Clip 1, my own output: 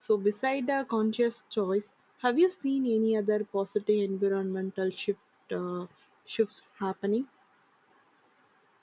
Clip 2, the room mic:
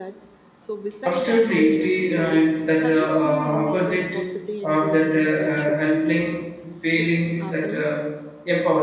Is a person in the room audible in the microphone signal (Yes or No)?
Yes